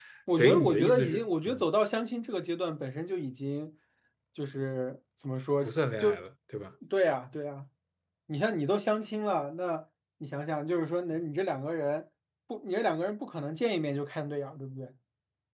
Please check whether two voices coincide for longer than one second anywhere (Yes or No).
Yes